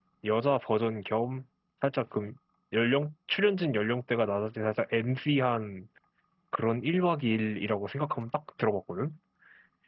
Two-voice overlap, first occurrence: none

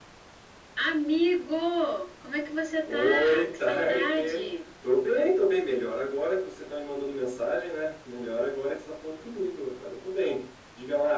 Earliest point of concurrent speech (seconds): 3 s

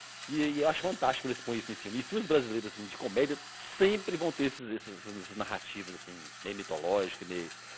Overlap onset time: none

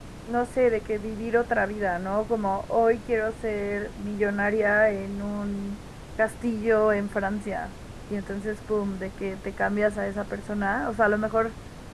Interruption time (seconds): none

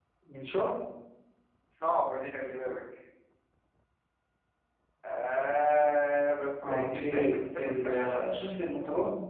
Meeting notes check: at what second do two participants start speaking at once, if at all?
7 s

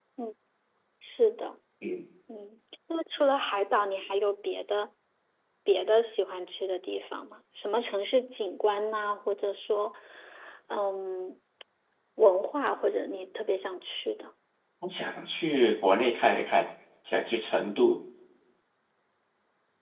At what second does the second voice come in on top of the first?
none

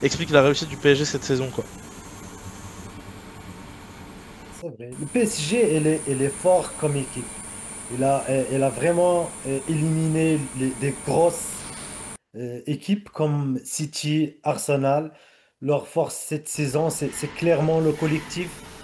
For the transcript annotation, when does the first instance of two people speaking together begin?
none

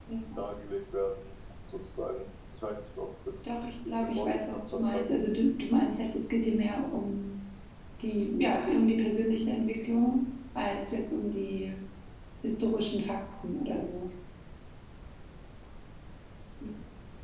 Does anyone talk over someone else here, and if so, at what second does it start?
4 s

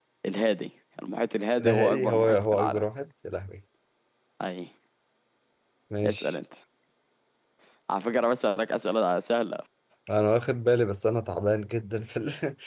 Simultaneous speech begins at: 2 s

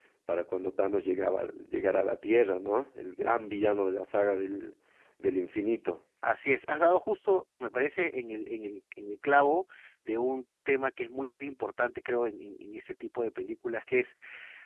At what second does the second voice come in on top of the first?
none

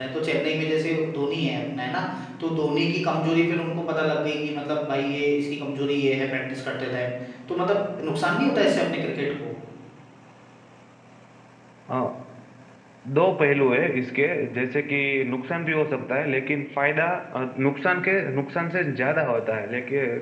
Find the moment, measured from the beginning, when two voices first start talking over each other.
none

